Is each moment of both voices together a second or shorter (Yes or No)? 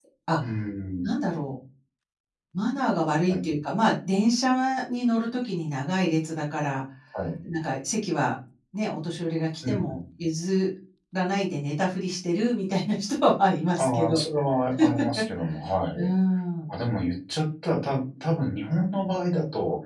Yes